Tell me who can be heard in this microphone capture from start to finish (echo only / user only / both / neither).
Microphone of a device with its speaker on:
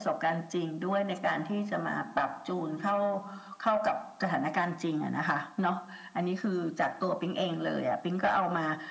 echo only